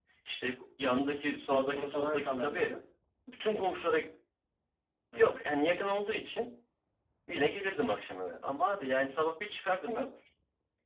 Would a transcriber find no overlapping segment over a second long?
No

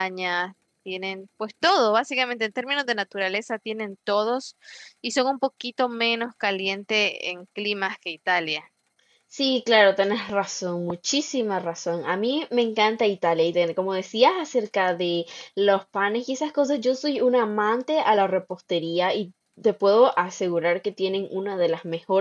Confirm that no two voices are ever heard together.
Yes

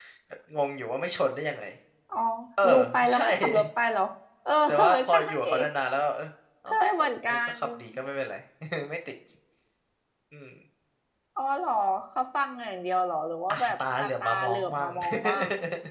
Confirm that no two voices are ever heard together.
No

